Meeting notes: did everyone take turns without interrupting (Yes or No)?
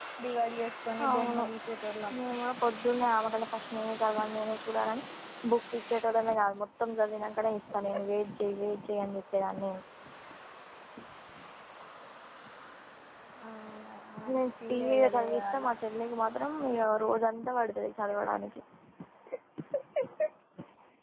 No